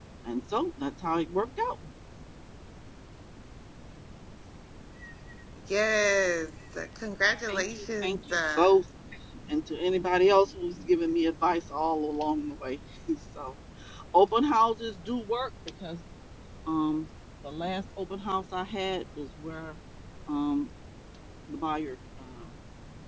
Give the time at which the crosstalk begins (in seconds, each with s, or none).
7.5 s